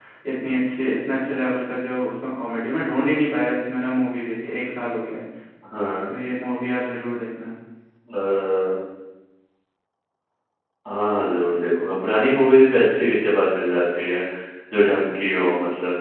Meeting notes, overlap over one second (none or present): none